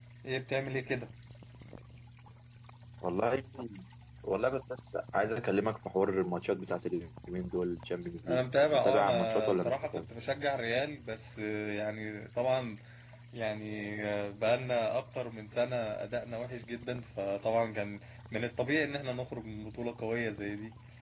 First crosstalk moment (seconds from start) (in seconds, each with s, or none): 8.3 s